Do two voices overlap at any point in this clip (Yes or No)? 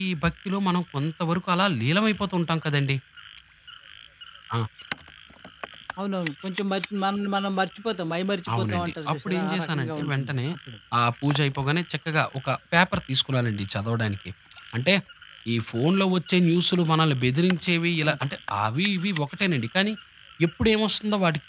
Yes